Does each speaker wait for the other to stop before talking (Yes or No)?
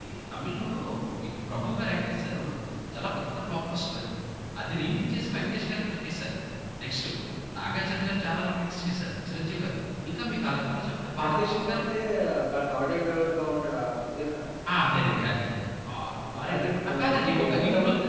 No